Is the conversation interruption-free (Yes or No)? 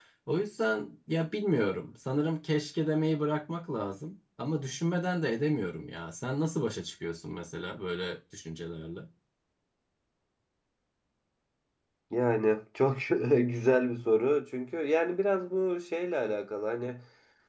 Yes